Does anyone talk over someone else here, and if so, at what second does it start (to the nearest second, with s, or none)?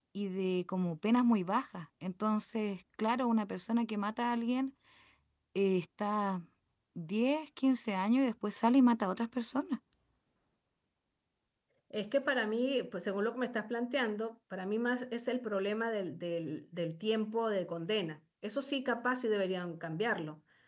none